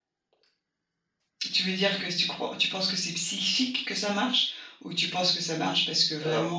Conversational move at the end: listening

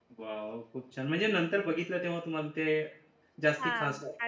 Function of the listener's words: taking over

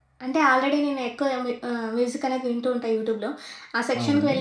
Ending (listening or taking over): listening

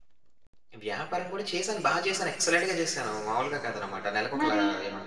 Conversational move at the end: listening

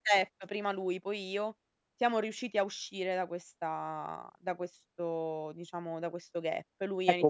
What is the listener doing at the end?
taking over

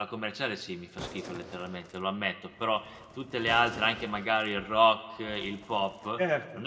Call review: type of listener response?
listening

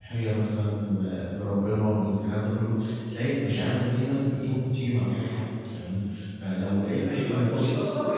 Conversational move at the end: taking over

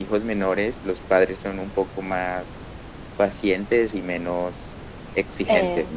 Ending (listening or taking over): taking over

